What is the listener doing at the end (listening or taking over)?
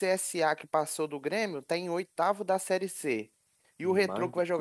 listening